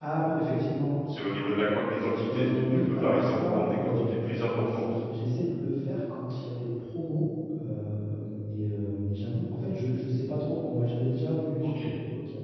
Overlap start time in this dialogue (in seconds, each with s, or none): 2.3 s